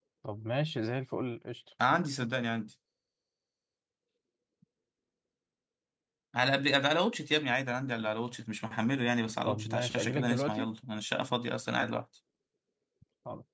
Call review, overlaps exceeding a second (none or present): present